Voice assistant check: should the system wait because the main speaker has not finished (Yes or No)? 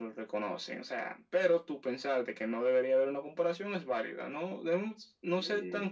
Yes